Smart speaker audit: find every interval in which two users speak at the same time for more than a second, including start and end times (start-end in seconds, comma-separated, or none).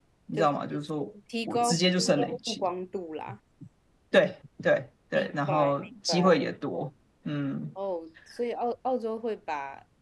1.5-2.7, 5.1-6.4